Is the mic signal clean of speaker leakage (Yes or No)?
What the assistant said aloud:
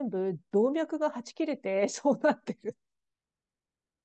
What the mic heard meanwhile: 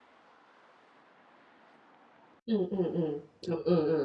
Yes